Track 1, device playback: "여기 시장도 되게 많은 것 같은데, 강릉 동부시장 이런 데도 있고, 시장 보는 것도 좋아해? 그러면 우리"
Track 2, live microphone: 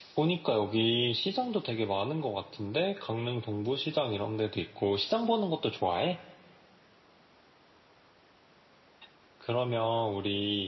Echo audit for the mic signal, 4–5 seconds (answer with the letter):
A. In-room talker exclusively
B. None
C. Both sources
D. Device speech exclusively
D